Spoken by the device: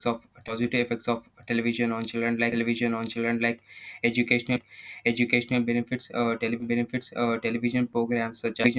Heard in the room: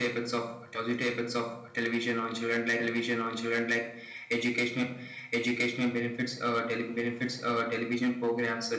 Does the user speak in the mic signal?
No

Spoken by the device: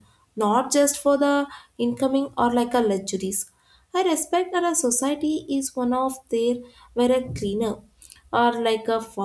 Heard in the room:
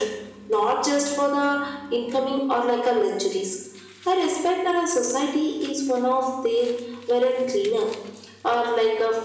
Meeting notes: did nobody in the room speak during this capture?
Yes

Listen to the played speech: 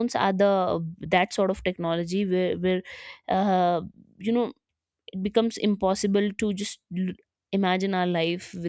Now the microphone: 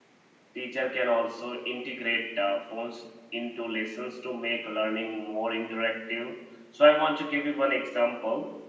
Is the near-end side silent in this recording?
No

